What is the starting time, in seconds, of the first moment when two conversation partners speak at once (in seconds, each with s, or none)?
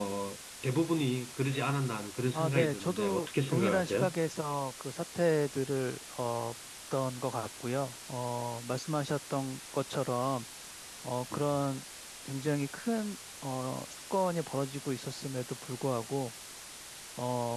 2.3 s